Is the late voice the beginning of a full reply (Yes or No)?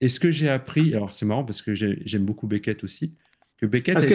Yes